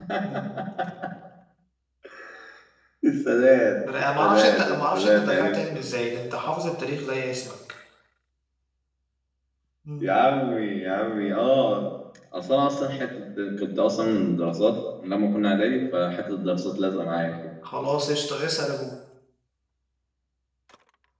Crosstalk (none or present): present